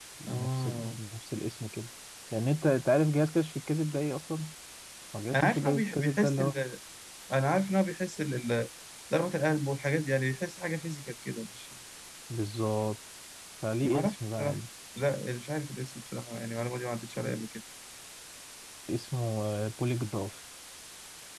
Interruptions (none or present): present